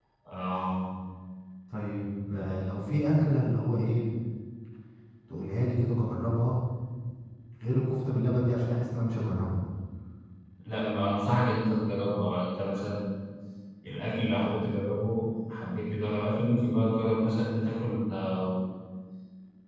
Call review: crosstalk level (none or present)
none